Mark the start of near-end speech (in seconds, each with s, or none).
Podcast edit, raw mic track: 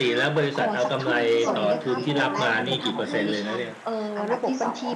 1.5 s